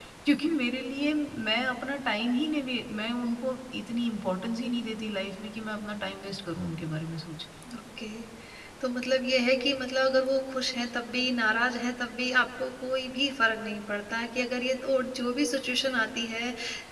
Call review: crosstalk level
none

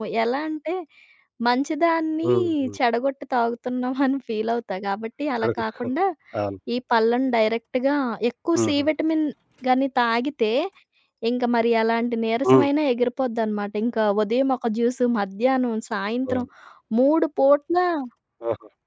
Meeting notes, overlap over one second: none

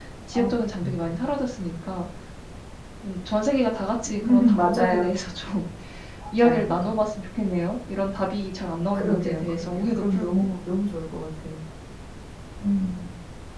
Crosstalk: present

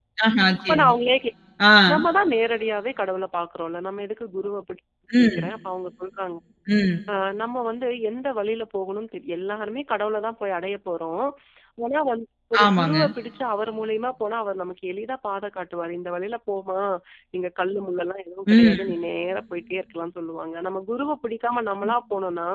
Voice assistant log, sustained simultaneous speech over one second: none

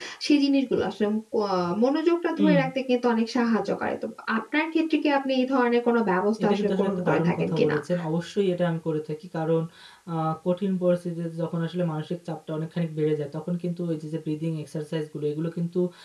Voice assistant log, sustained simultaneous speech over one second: present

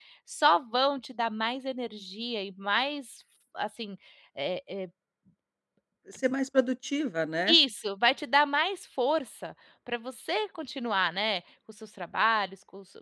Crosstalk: none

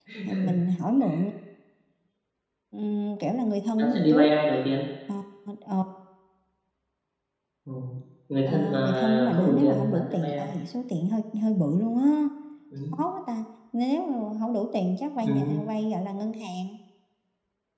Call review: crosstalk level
present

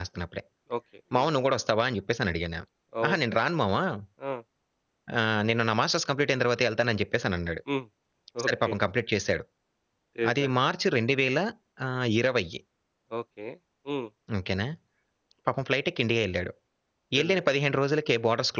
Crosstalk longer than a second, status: none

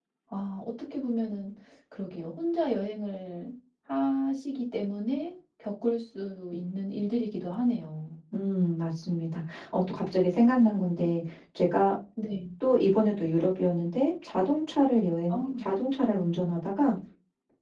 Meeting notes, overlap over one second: none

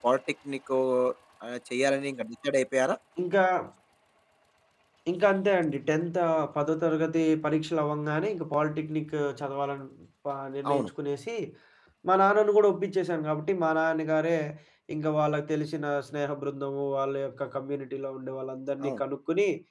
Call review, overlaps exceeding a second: none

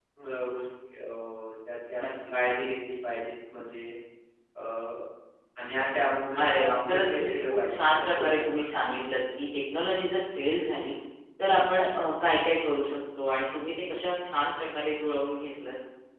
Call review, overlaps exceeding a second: present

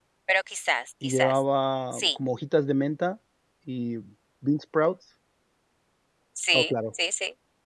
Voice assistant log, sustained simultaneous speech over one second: none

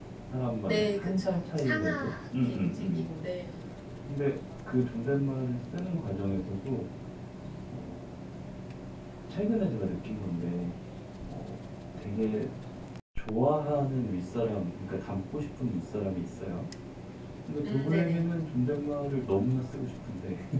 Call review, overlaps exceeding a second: present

